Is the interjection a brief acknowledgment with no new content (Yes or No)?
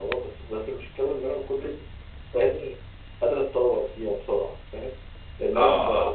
Yes